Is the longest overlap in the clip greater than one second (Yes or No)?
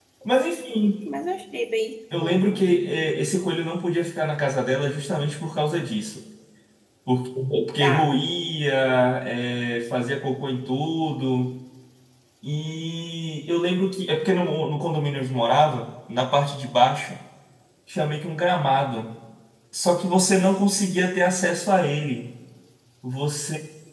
No